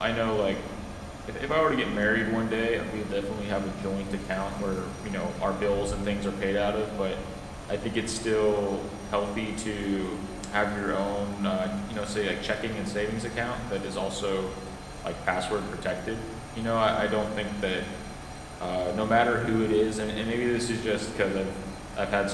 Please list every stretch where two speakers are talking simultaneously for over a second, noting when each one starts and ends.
none

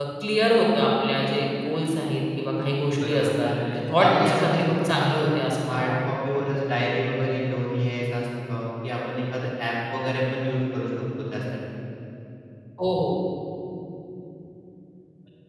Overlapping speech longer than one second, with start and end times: 3.1-5.2

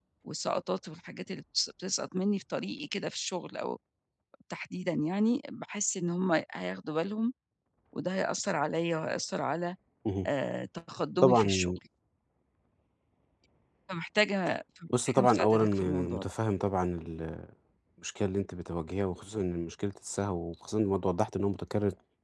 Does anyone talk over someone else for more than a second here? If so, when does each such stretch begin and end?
15.1-16.3

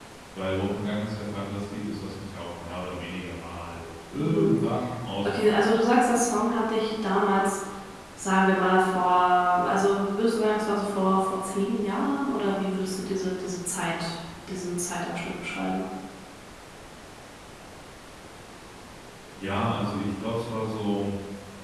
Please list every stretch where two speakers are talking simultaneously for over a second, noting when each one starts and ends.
none

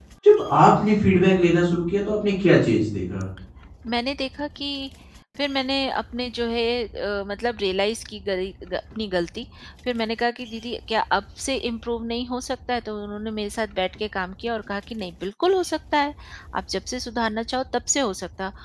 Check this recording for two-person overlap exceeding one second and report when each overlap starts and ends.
none

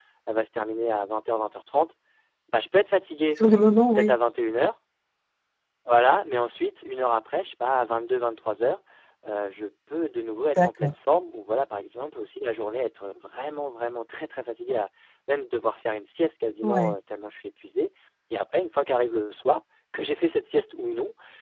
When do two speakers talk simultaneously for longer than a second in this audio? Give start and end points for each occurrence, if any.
none

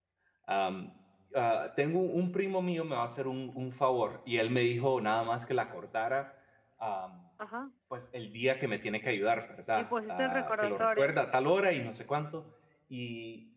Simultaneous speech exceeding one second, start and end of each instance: 9.8-11.2

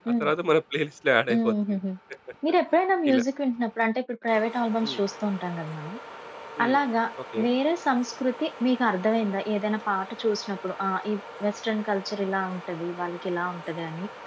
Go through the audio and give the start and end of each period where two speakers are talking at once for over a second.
none

